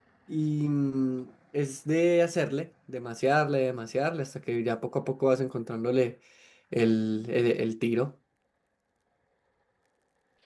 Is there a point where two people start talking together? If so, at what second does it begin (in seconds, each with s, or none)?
none